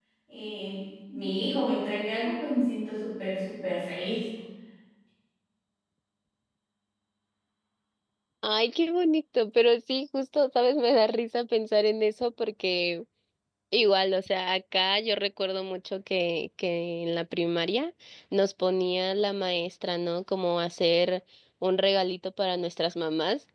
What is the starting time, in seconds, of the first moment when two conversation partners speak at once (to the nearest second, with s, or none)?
none